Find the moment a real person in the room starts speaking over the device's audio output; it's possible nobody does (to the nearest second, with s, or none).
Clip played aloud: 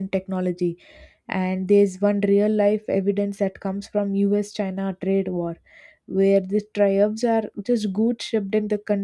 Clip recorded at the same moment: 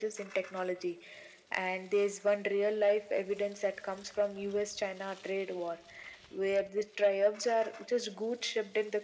none